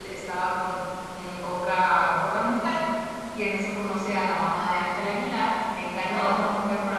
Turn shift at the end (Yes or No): No